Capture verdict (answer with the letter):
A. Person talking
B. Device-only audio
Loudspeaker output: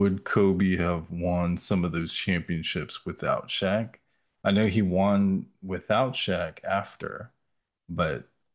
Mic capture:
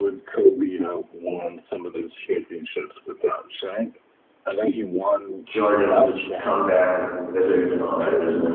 A